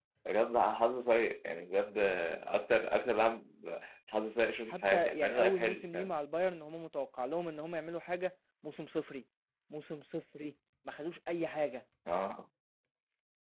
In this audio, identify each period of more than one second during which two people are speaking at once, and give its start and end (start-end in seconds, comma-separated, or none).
4.7-6.1